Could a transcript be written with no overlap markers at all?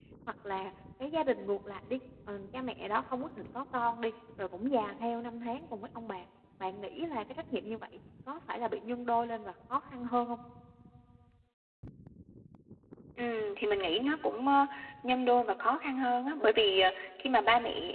Yes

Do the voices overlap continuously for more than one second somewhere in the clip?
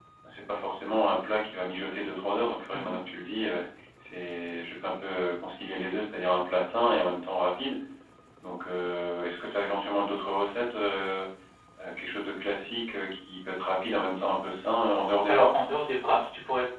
No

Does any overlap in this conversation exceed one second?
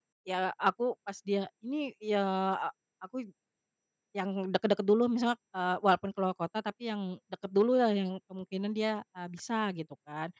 No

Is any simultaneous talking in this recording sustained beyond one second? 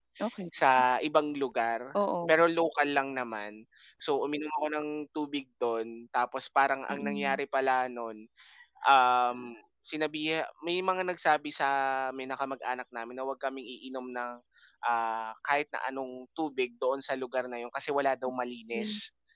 No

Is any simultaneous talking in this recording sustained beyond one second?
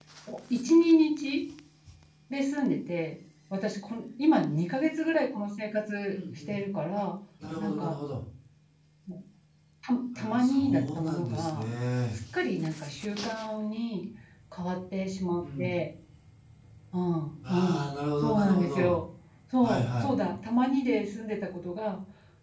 Yes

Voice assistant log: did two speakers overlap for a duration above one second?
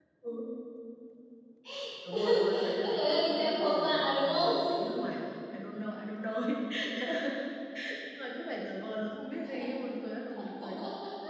Yes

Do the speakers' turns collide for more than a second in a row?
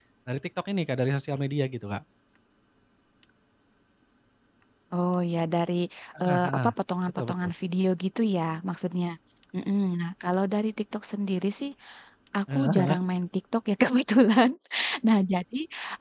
No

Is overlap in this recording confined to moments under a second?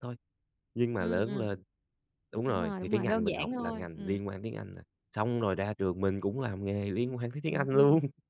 No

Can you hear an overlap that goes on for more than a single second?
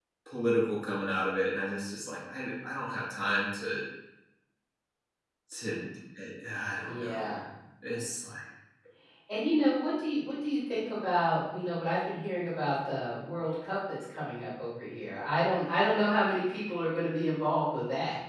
No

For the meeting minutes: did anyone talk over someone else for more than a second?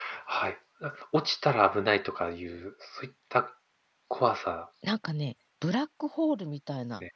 No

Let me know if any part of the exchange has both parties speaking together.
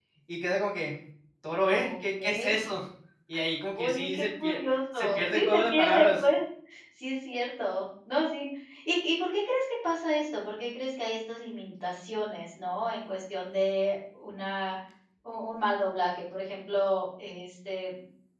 Yes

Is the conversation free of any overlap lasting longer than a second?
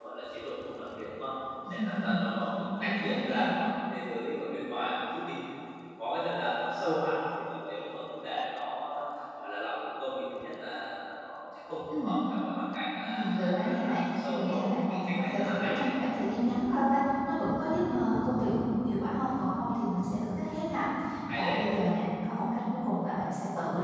No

